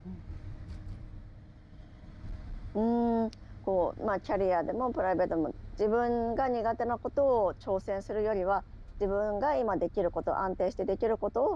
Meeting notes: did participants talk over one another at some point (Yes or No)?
No